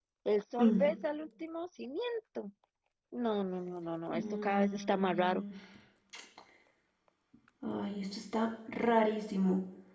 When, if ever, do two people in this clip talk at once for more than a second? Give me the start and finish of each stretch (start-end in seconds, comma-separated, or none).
4.1-5.4